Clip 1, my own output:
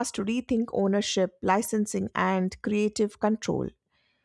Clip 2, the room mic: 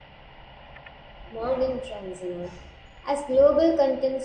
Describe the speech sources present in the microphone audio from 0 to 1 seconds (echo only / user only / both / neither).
neither